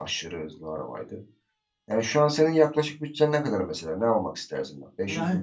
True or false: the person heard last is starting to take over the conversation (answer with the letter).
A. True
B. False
A